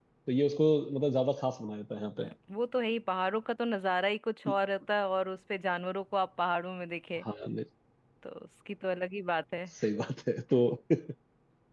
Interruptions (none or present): none